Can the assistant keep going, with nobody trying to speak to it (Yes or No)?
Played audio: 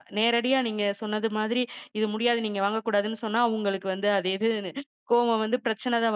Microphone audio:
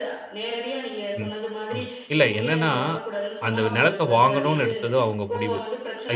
No